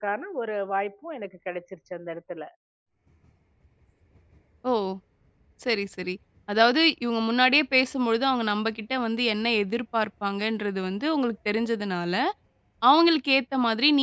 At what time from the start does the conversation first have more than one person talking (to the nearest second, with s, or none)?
none